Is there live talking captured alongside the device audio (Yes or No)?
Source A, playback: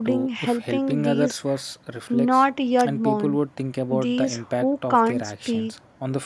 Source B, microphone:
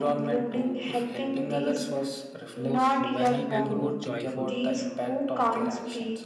Yes